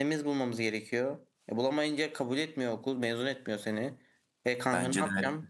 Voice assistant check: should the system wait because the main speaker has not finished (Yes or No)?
Yes